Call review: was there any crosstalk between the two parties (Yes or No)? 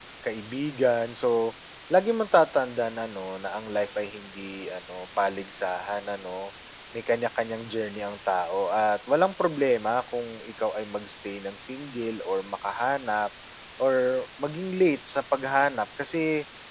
No